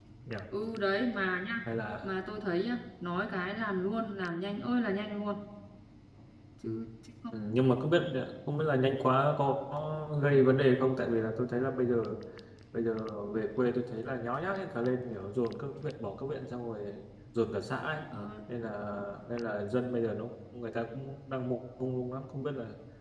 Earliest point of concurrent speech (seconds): none

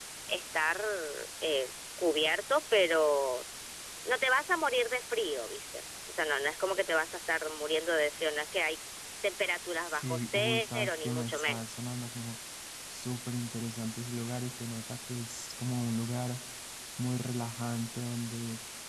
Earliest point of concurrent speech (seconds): 9.9 s

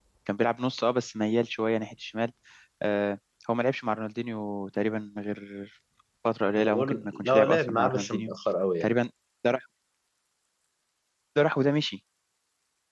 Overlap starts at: 6.6 s

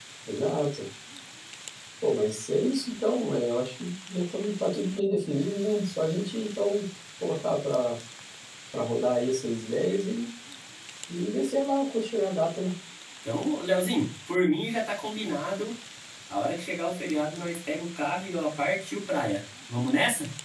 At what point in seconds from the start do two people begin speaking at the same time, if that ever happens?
none

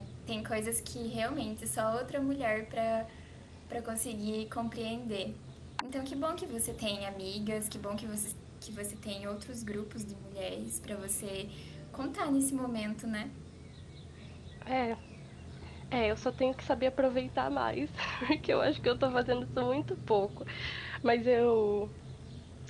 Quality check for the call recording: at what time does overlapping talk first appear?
none

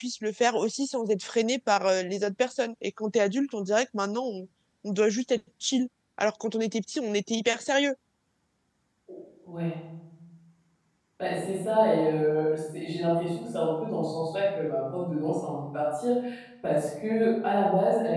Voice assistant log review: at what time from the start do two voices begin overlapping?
none

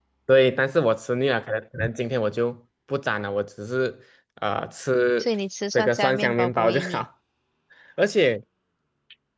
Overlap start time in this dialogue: 5.8 s

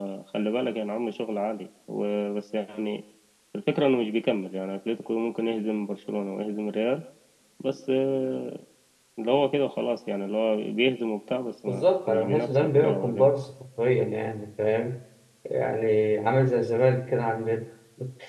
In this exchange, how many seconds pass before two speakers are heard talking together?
11.7 s

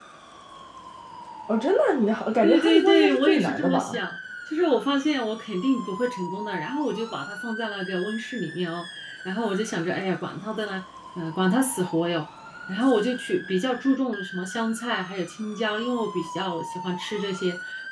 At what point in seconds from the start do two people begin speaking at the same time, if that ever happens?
2.4 s

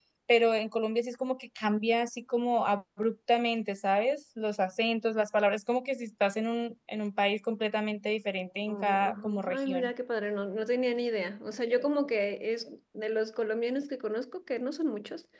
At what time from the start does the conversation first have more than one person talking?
8.7 s

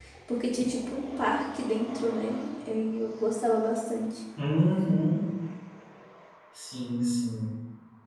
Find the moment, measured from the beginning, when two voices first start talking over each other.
none

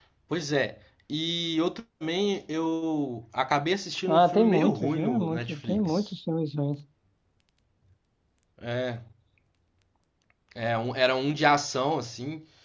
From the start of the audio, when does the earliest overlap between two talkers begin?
4.1 s

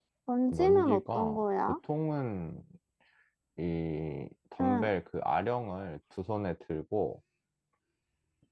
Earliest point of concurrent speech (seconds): 0.5 s

